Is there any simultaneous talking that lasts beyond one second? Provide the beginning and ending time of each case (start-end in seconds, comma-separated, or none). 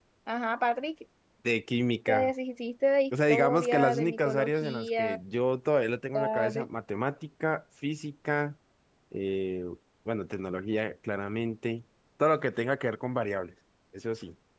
3.3-5.2